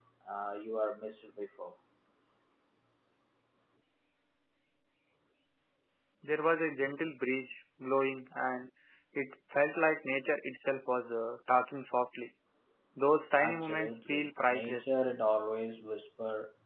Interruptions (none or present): present